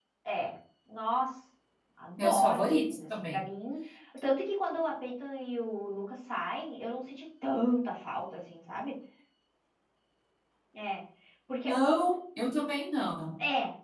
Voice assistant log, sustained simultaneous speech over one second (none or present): present